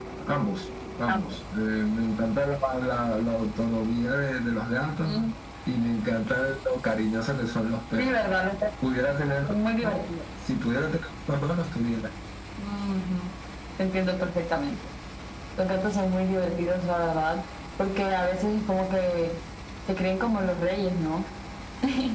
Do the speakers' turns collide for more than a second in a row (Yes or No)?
No